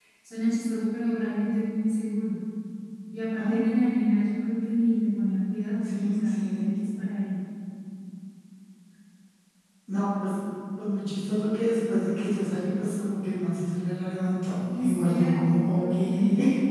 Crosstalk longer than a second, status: present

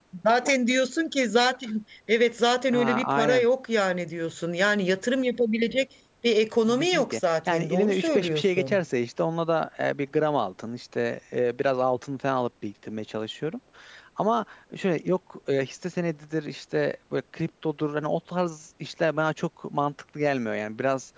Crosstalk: present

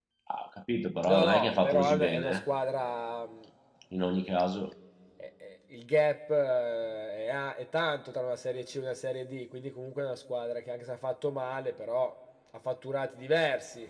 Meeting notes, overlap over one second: present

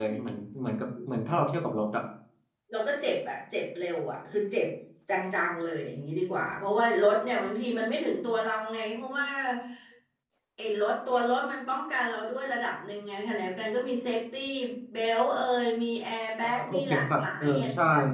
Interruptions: present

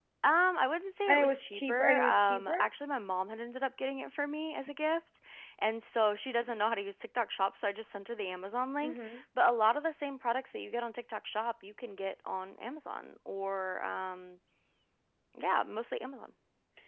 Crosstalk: present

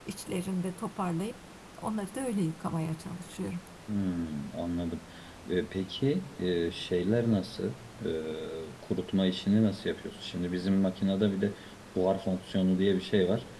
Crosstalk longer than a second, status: none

